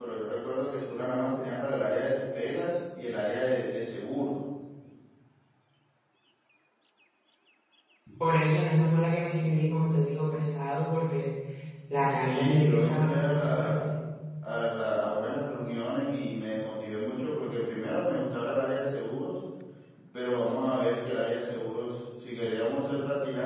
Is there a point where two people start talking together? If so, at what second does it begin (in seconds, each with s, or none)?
12.2 s